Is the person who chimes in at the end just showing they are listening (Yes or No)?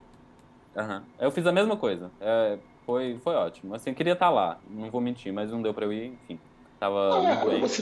No